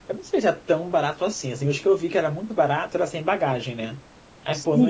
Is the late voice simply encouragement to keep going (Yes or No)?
No